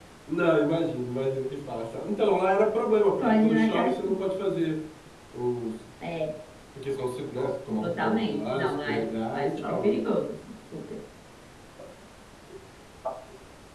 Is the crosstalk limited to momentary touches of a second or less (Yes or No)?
No